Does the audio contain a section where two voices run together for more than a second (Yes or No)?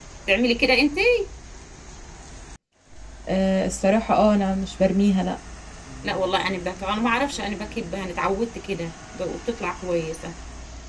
No